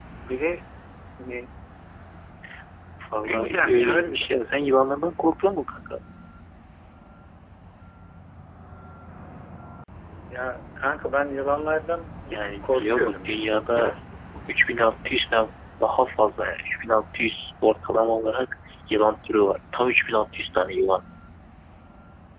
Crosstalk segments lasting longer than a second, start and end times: 3.1-4.3, 12.3-13.9

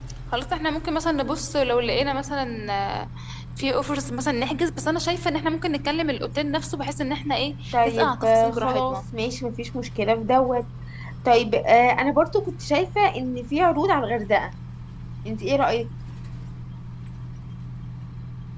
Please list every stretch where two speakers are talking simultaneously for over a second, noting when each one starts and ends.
7.7-9.0

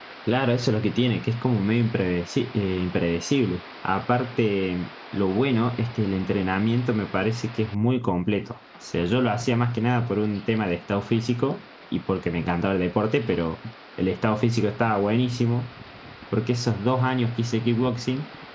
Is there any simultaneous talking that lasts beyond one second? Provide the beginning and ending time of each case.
none

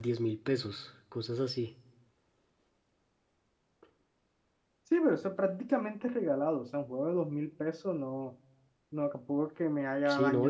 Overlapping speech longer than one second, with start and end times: none

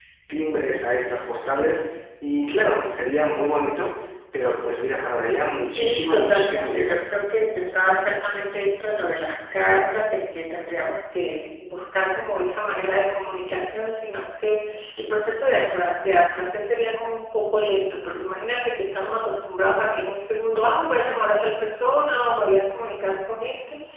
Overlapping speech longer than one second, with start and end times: 5.7-7.0

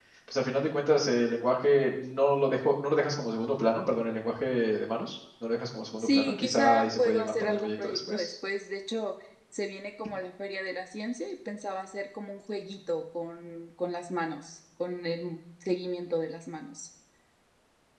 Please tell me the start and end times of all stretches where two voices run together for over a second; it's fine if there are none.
6.0-8.3

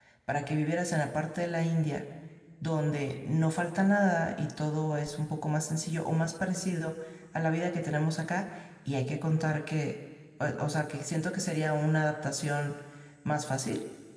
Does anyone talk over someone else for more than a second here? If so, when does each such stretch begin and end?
none

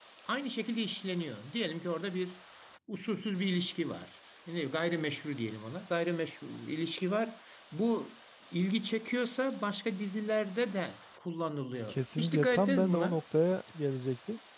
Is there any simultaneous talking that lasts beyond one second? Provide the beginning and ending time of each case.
11.9-13.2

